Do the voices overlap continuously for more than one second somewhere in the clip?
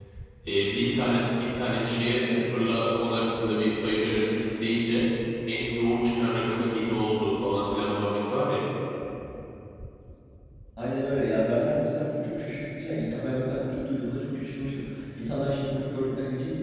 No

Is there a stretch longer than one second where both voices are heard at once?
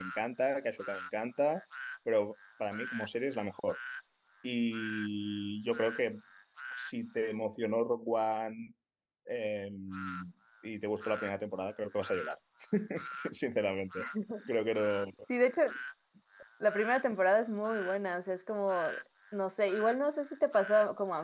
No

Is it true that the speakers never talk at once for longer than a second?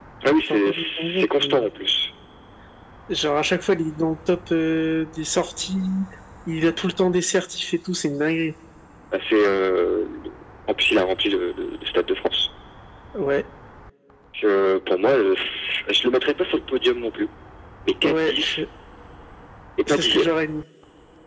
No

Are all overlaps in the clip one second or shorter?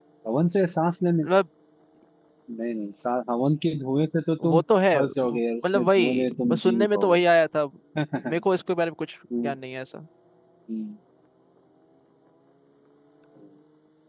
No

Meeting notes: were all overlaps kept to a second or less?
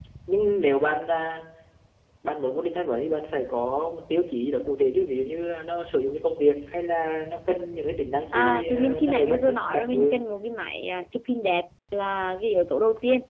No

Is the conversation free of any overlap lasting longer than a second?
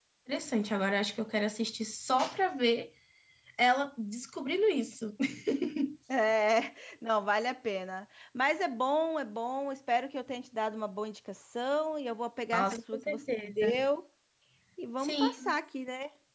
No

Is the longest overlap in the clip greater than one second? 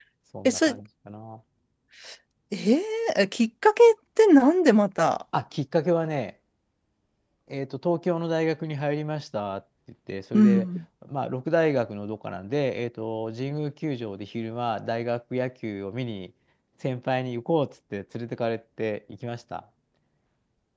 No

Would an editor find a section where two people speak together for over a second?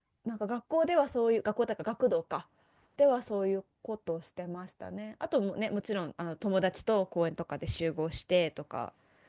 No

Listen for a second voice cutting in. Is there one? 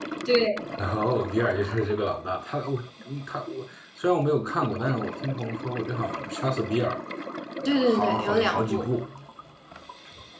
Yes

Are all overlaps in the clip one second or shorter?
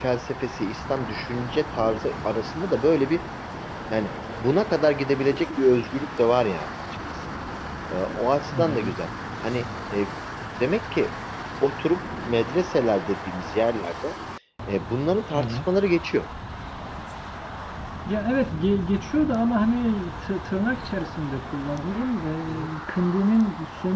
Yes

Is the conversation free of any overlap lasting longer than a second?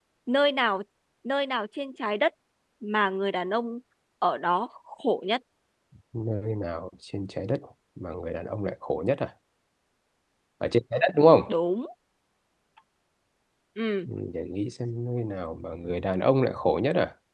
Yes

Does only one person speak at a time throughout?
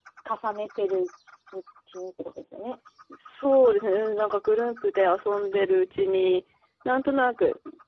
Yes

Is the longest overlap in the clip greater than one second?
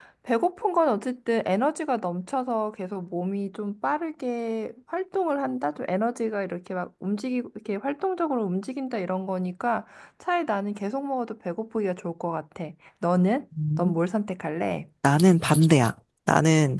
No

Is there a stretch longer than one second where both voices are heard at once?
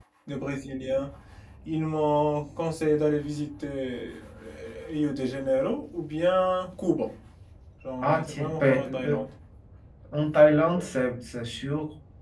Yes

